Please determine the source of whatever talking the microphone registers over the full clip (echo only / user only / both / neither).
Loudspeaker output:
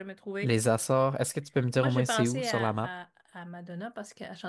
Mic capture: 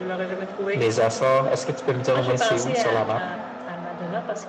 echo only